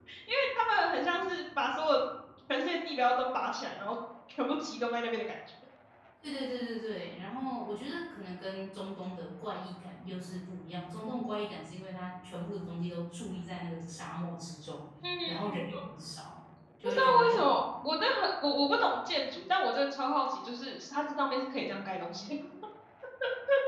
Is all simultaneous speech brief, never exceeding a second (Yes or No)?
Yes